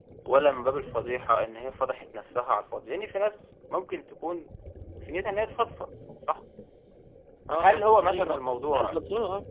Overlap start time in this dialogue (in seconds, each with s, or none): 7.5 s